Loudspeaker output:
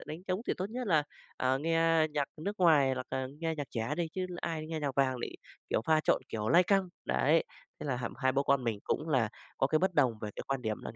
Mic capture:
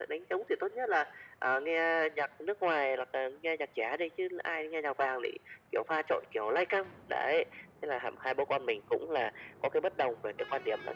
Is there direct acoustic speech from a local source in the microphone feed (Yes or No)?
No